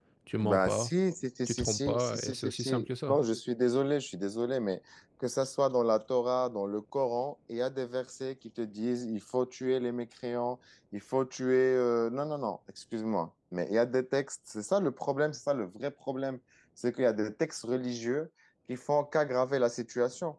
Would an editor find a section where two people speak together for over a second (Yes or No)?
Yes